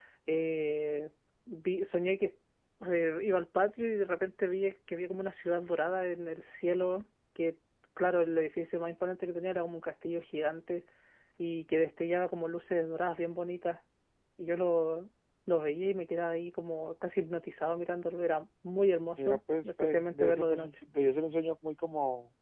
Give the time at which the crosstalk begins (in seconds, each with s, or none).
19.2 s